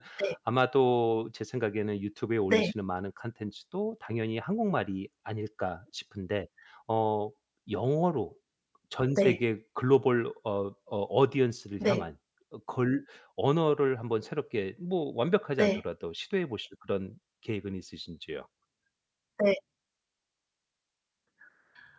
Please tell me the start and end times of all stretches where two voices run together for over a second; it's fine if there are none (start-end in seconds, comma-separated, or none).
none